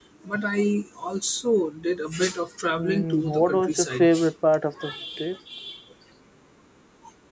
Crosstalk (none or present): present